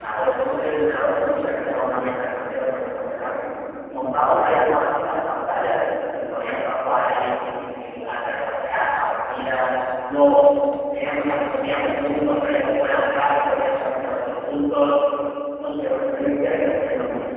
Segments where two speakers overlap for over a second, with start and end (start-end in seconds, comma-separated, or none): none